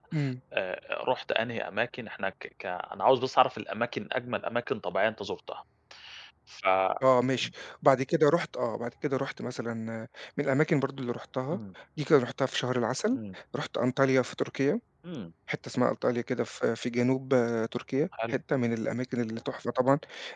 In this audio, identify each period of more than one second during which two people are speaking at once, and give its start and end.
none

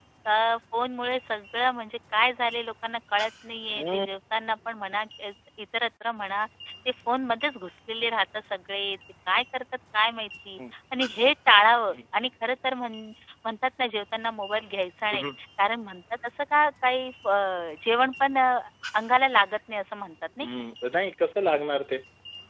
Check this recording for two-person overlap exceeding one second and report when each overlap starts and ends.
none

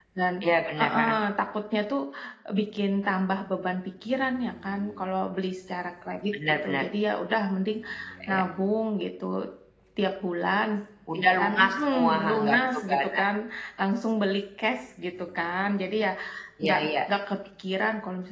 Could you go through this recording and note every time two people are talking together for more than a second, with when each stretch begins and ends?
11.2-13.3

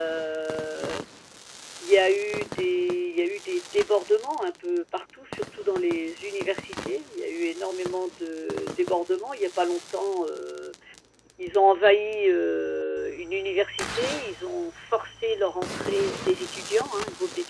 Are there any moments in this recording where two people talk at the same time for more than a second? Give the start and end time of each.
none

